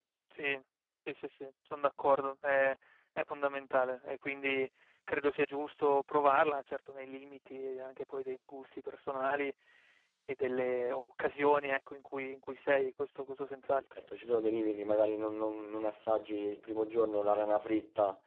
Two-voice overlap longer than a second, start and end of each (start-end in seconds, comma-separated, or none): none